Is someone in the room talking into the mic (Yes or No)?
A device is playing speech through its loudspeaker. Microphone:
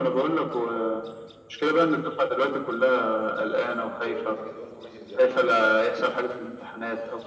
Yes